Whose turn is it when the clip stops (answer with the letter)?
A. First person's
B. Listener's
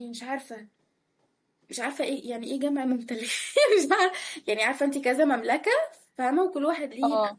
A